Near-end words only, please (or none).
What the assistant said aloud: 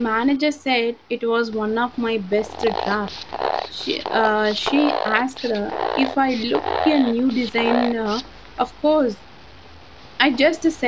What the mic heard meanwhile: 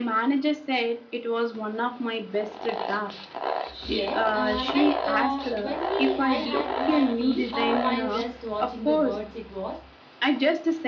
Yes, uh, like uh, when we I had my tea uh, while just watching the birds. It was